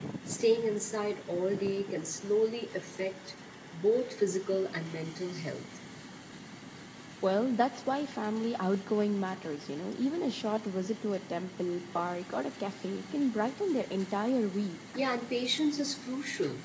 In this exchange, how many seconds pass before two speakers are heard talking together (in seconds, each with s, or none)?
none